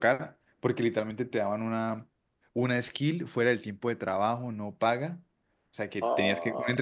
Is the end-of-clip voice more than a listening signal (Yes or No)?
No